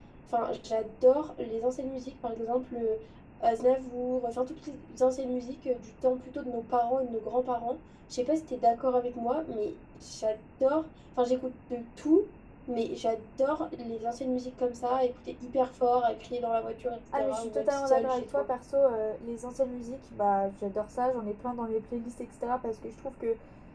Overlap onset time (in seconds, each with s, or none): 17.1 s